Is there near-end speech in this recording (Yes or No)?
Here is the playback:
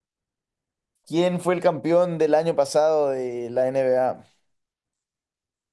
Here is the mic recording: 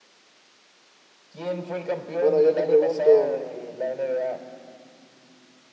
Yes